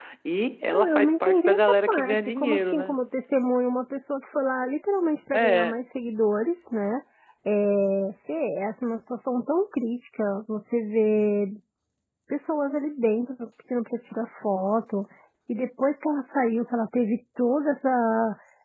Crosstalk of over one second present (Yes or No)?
Yes